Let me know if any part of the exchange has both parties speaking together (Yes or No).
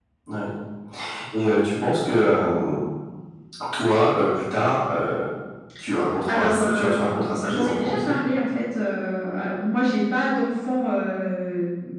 Yes